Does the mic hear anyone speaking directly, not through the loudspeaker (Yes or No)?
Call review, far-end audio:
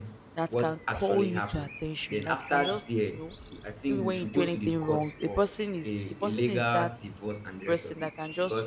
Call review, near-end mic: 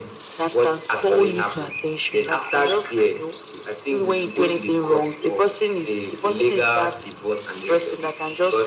No